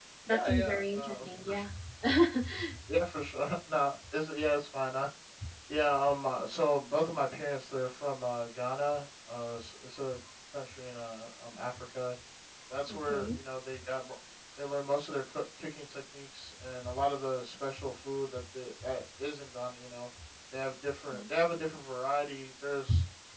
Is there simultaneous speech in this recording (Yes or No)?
Yes